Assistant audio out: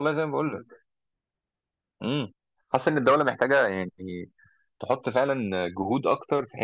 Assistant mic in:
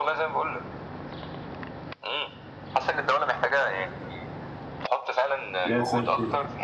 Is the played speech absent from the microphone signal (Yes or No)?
No